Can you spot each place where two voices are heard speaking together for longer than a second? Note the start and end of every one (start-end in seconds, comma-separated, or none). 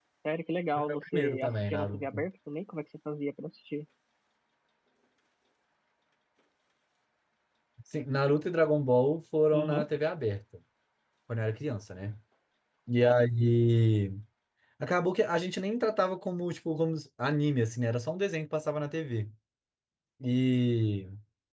0.8-2.2